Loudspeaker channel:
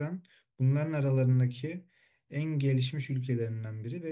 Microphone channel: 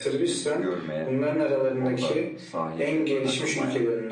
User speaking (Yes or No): Yes